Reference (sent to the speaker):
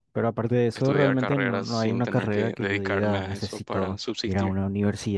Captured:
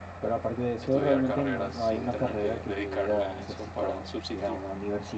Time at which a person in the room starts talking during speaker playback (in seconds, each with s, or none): none